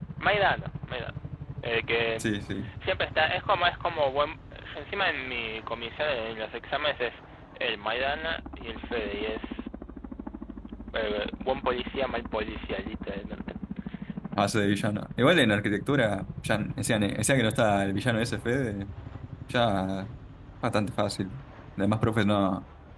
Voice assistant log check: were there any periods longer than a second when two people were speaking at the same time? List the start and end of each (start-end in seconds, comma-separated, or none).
none